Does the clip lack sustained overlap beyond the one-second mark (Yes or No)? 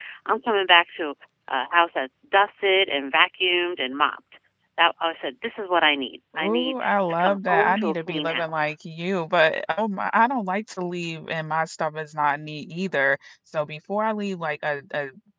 No